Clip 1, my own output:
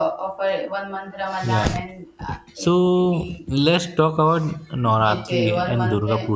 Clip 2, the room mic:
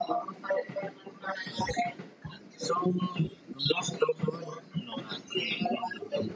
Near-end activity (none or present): none